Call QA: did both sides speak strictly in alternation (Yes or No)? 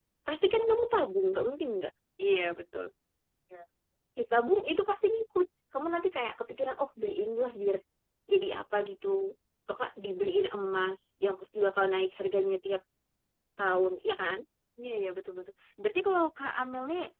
Yes